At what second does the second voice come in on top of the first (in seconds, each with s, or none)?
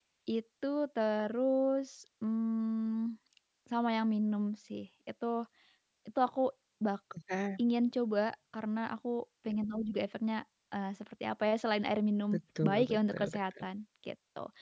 12.3 s